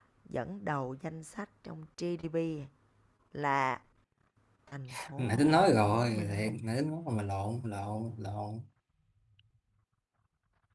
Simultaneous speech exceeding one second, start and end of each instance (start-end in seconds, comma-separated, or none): 5.2-6.5